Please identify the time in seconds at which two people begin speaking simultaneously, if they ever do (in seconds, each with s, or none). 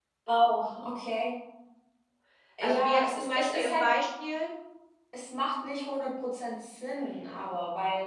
2.6 s